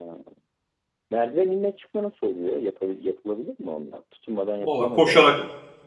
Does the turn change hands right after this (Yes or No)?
Yes